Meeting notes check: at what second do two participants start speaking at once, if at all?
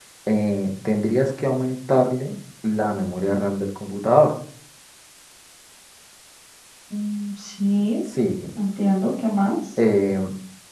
none

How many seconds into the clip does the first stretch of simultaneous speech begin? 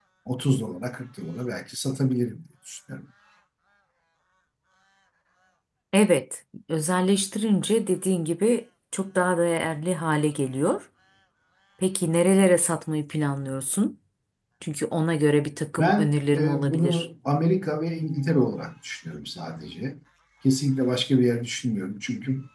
15.8 s

